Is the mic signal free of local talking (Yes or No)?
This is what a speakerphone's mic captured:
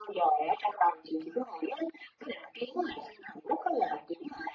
Yes